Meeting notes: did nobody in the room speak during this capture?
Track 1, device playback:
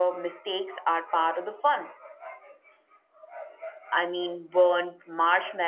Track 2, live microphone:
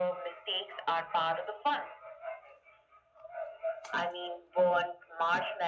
Yes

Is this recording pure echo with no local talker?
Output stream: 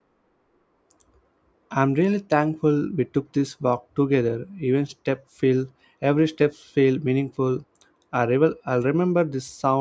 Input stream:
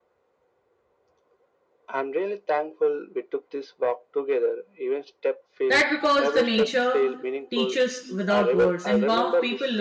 No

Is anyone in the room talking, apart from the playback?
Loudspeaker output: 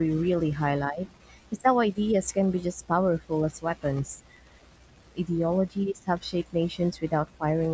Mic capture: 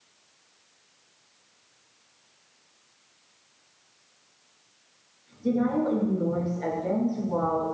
Yes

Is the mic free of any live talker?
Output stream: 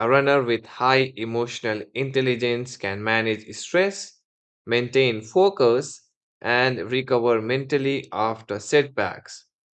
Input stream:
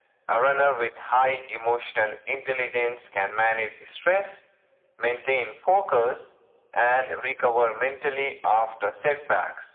Yes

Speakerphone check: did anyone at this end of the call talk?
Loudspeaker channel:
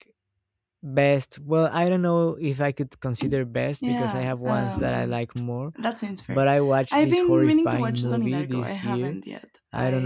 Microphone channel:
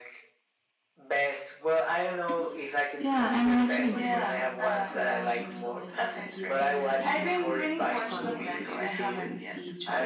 Yes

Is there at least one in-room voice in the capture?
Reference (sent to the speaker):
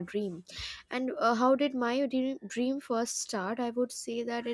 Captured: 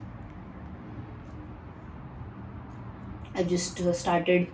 Yes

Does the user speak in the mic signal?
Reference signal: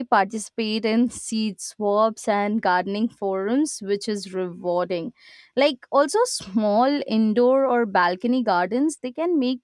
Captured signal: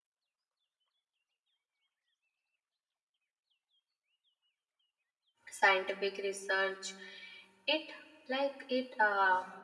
Yes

